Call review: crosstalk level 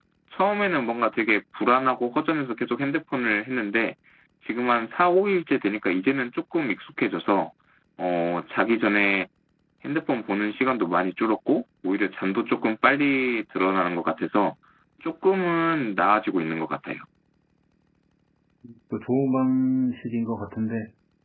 none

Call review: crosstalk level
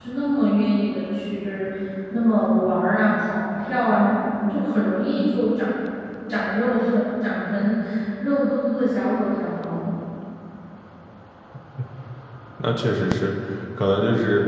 none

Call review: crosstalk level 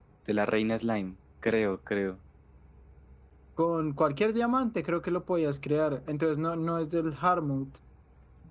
none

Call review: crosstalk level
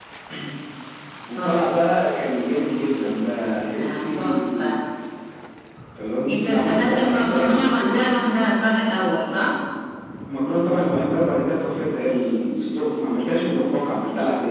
present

